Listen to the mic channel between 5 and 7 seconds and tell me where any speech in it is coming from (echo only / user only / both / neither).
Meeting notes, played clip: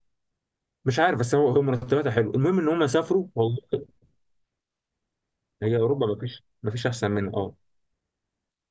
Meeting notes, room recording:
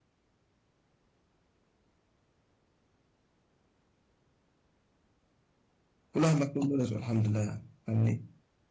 user only